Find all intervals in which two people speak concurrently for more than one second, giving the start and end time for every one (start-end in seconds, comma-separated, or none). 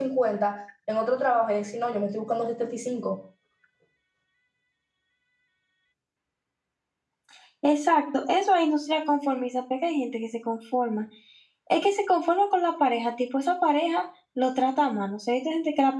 none